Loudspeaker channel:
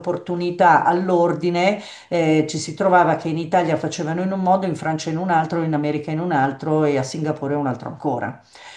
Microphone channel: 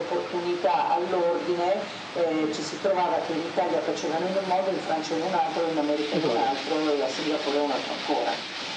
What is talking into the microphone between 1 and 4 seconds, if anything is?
echo only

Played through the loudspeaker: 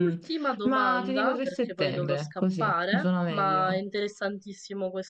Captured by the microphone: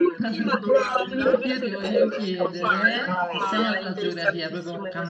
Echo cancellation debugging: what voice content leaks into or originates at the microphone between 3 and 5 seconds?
both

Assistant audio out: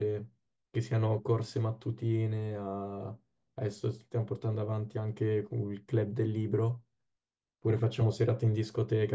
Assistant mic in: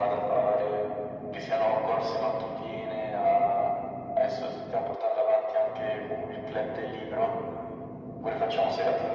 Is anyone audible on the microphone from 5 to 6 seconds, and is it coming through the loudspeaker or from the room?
echo only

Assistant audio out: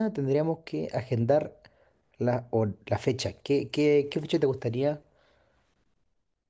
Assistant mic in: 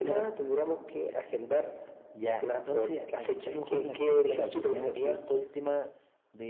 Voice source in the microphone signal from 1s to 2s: echo only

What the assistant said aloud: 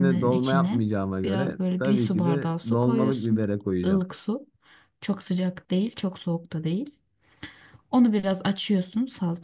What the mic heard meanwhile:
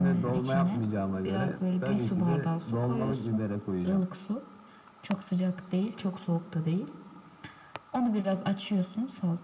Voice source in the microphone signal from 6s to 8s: echo only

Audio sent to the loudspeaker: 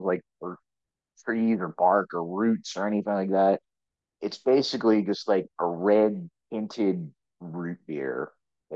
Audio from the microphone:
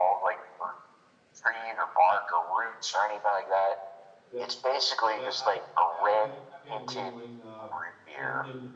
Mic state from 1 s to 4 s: echo only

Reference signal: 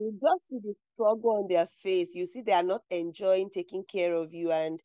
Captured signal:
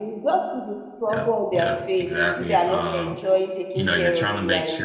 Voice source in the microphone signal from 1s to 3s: both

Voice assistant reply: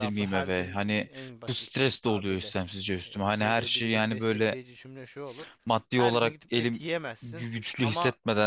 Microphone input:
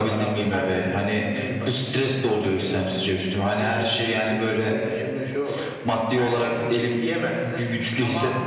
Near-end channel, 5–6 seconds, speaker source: echo only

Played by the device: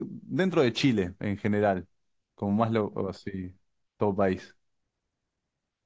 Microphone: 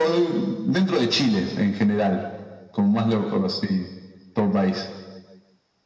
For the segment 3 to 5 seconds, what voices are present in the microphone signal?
echo only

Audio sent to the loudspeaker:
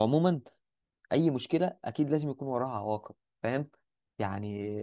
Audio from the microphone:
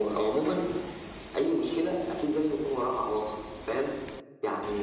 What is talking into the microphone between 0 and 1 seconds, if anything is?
echo only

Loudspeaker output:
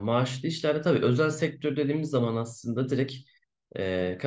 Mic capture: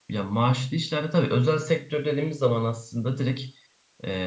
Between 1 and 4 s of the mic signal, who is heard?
echo only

